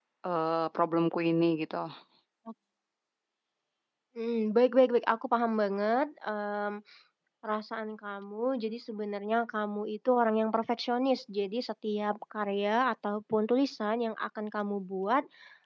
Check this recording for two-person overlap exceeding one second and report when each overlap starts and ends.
none

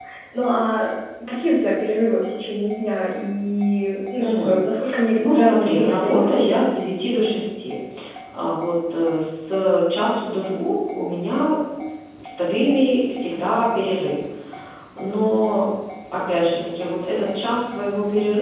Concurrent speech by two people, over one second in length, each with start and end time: 5.2-6.6

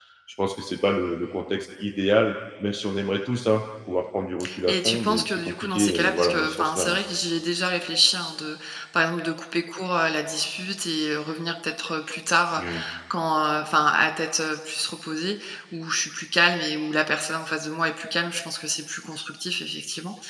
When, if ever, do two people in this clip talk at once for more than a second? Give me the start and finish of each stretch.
4.7-7.0

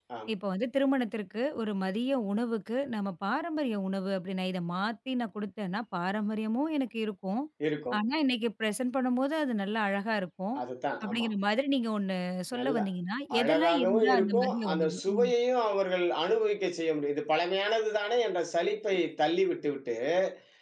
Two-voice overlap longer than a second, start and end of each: 13.4-15.3

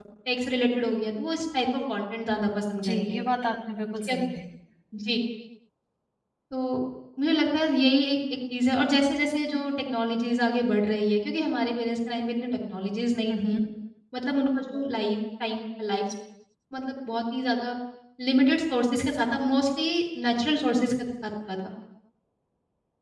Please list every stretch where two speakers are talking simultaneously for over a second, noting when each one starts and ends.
none

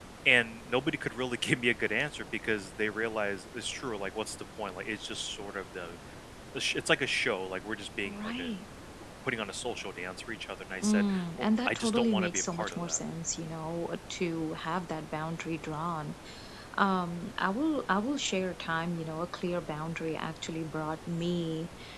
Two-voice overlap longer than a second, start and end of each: 10.8-13.0

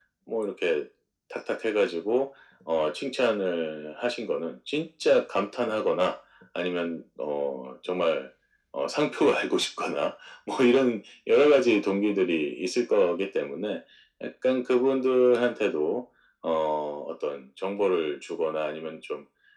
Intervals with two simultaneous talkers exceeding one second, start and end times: none

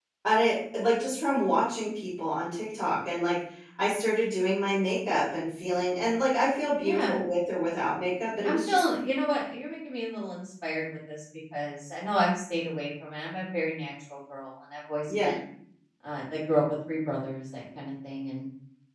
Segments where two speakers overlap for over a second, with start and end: none

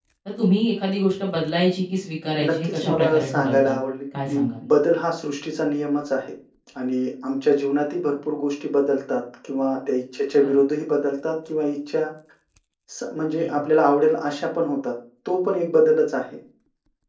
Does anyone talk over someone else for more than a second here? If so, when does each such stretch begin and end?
2.4-3.8

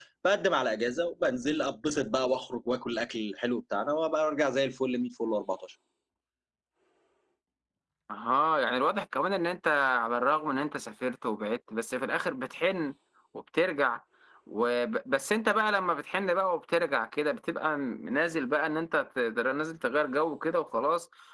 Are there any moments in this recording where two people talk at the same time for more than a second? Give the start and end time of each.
none

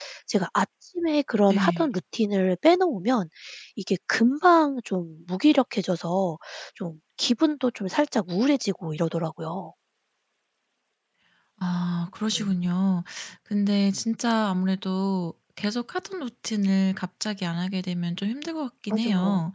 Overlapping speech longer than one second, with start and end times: none

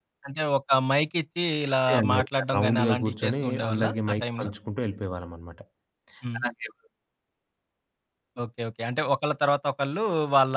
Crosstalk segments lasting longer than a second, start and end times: 1.9-4.5

